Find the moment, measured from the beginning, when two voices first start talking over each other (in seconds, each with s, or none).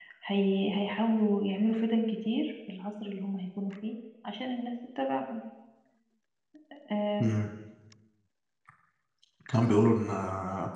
none